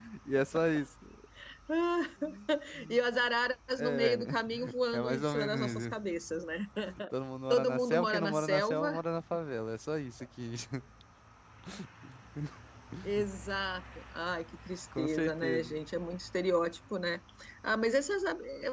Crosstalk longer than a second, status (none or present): present